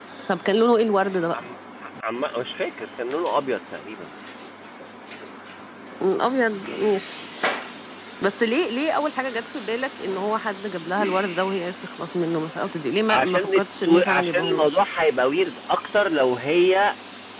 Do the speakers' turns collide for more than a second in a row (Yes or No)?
Yes